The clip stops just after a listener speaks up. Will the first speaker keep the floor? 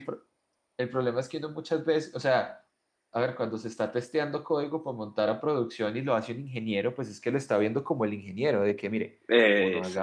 Yes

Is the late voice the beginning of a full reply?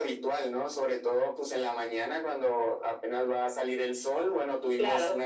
No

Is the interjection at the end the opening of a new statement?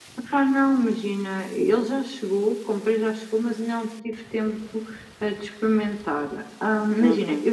No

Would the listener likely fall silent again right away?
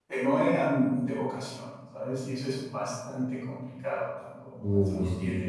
Yes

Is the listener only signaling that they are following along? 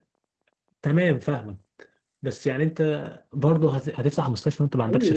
No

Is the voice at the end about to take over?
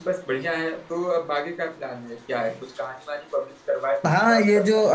Yes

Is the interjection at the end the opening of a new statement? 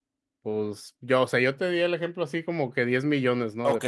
Yes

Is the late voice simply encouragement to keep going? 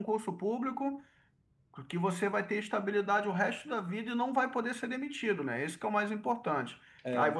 Yes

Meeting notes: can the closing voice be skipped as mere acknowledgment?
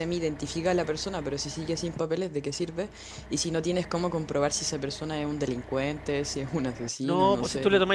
No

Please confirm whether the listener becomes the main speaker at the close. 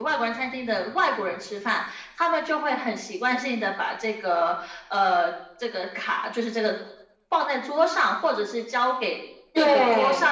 No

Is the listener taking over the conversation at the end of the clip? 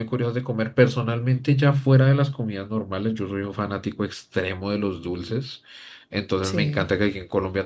No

